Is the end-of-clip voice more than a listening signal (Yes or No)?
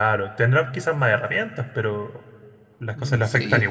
Yes